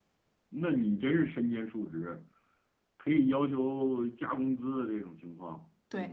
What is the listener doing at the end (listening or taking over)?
taking over